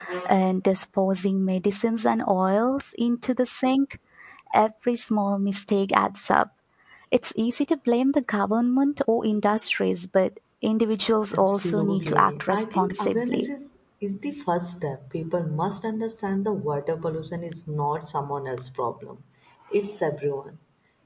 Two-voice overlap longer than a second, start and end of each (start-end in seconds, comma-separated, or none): 11.3-13.5